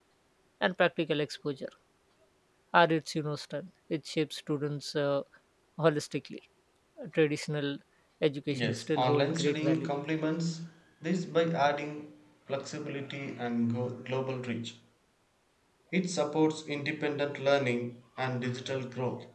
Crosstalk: present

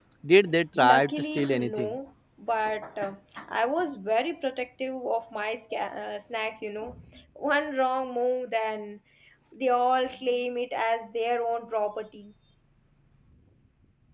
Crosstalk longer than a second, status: present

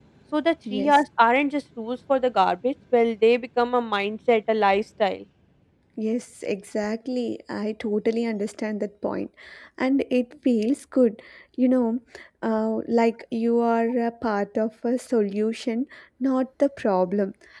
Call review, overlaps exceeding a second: none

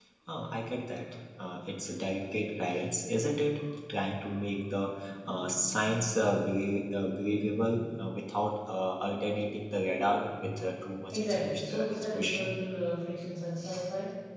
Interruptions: present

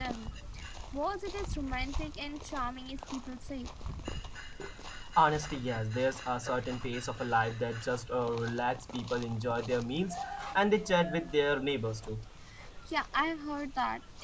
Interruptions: none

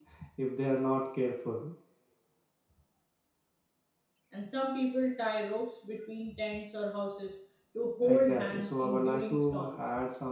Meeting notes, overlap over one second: present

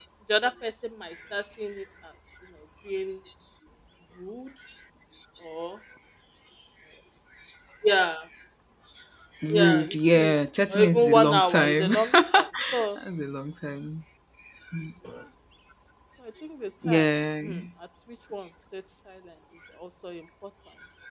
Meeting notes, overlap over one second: present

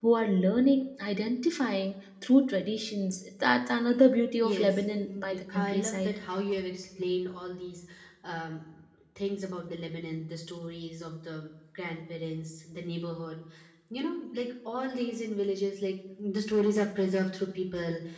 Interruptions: present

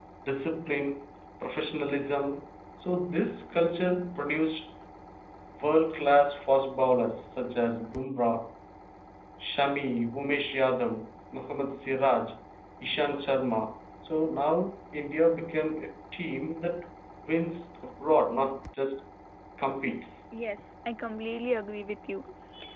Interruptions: none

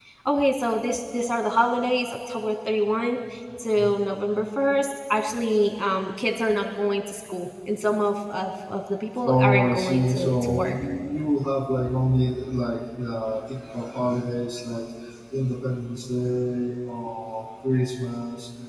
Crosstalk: present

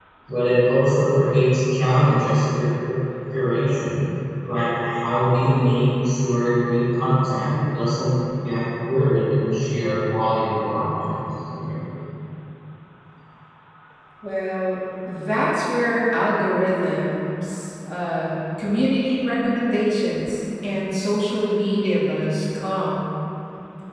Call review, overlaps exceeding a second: none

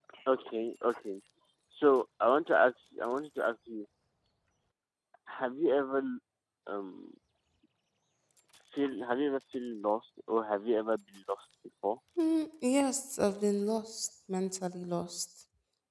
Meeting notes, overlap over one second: none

